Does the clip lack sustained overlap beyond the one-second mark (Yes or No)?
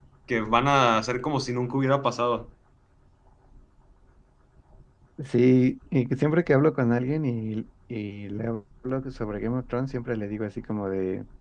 Yes